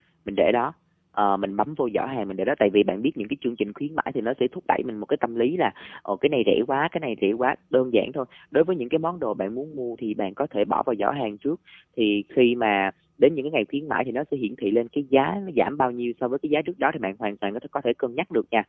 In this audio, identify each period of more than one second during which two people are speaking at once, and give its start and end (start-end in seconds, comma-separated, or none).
none